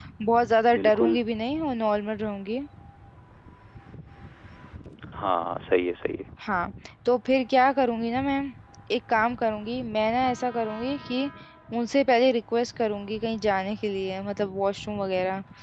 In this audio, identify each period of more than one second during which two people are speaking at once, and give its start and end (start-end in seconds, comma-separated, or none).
none